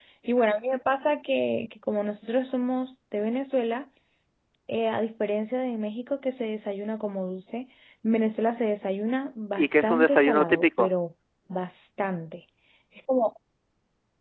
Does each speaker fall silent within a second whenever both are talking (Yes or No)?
No